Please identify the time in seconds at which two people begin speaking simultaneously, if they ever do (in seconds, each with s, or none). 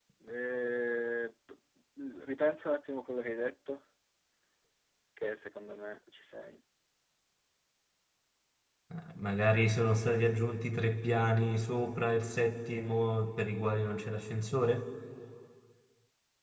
none